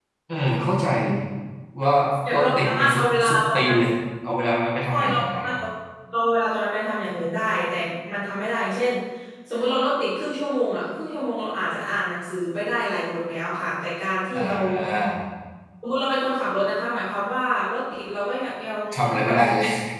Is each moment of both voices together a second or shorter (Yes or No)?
No